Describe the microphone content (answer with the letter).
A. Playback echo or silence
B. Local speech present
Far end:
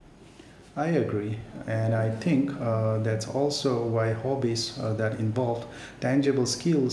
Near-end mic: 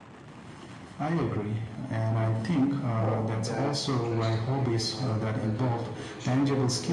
B